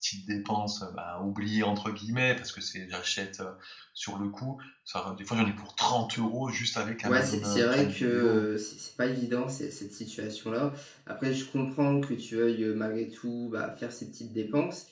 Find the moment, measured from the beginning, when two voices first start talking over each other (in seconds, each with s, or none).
7.0 s